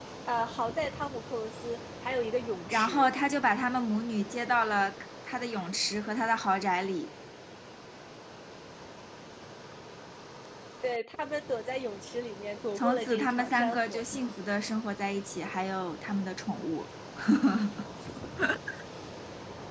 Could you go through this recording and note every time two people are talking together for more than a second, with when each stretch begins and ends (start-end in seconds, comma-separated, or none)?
12.8-14.0